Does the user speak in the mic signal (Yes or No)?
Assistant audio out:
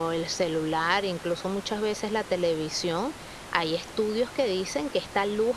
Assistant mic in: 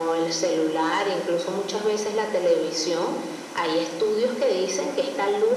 No